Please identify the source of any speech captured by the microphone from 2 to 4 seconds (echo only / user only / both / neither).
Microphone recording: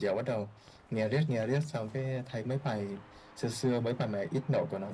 echo only